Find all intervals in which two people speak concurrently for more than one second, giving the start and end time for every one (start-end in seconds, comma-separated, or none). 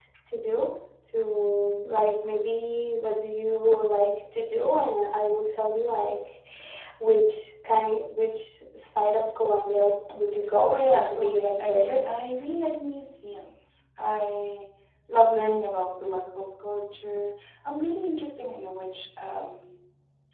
10.7-12.0